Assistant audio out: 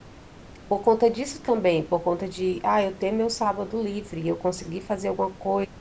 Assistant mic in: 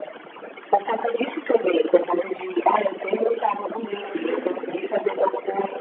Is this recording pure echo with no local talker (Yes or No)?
No